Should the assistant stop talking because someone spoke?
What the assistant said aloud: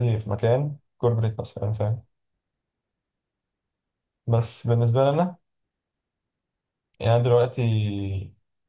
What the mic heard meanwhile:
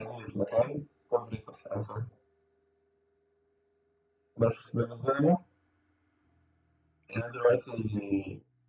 No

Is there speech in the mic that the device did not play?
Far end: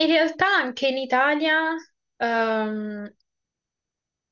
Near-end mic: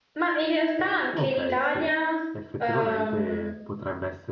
Yes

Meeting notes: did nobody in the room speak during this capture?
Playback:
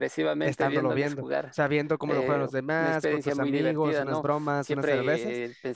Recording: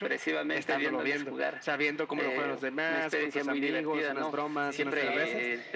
No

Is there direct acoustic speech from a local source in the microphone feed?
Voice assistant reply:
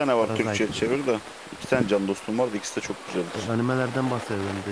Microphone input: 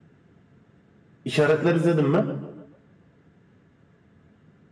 Yes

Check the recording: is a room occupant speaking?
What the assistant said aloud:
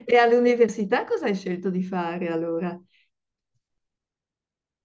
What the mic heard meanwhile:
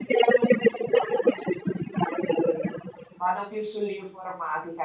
Yes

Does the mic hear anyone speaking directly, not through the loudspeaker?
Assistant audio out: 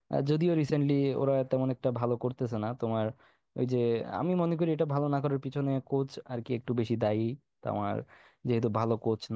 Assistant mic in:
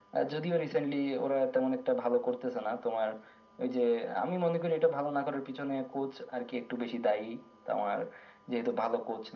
No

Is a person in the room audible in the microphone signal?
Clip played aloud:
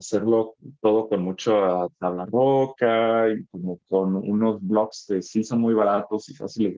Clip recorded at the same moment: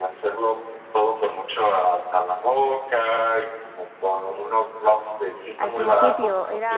Yes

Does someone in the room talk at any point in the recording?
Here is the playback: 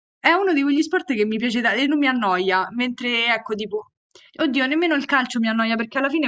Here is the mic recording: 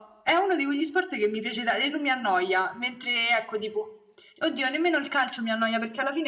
No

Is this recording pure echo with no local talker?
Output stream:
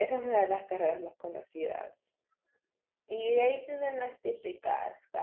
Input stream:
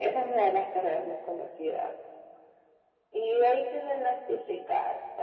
Yes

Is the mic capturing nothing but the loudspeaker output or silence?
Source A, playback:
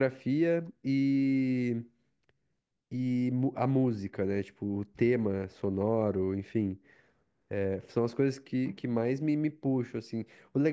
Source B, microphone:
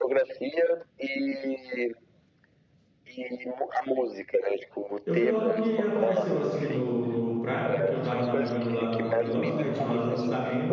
No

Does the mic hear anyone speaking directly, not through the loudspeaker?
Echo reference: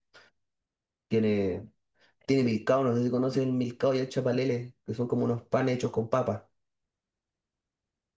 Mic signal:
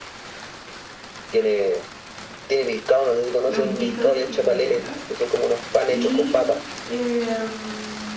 Yes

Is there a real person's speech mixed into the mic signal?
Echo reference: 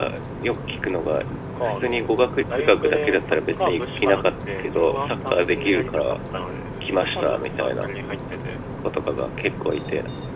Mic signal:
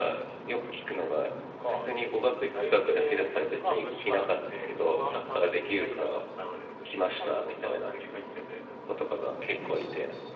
No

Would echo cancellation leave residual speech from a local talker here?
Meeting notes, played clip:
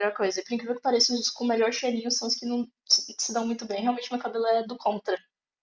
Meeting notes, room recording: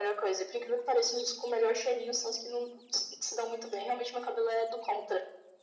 No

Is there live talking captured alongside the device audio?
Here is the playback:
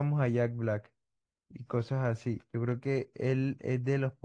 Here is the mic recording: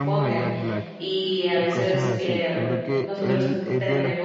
Yes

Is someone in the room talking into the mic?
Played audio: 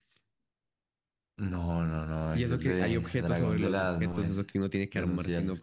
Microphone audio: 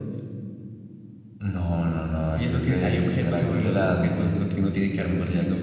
No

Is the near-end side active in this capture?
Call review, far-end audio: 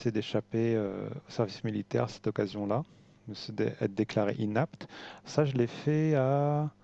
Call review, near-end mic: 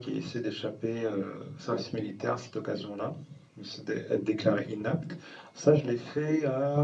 No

